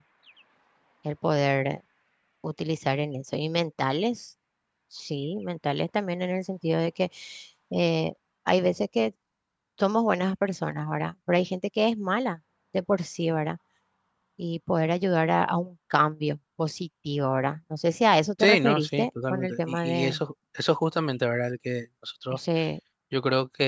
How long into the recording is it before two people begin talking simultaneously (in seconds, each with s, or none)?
18.4 s